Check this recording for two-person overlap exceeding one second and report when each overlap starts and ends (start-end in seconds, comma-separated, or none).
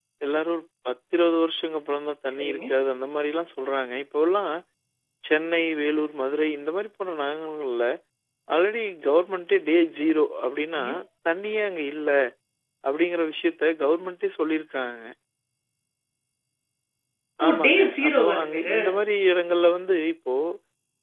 17.4-18.8